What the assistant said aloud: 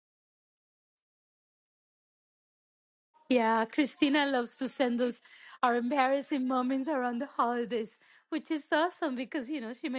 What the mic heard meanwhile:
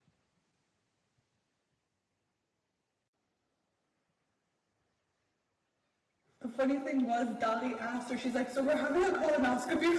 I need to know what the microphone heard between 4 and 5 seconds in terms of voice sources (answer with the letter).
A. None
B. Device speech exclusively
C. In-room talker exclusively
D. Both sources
A